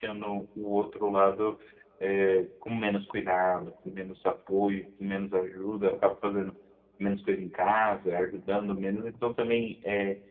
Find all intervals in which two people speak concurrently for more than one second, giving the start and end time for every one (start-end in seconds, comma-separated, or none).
none